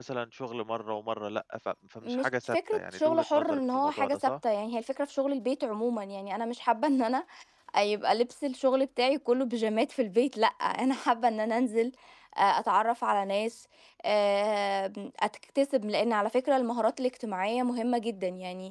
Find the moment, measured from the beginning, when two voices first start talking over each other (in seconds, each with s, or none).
2.0 s